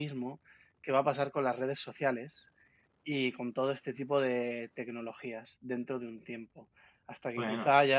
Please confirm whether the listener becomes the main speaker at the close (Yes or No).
No